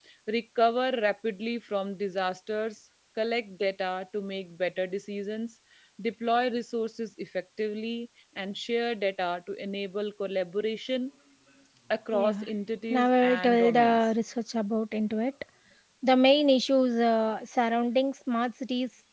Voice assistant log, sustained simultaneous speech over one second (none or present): present